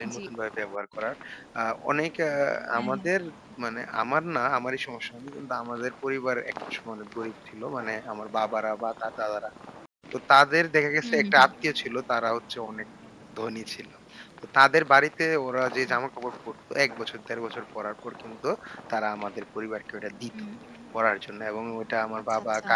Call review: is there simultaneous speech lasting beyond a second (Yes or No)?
No